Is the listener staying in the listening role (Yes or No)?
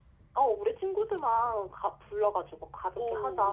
No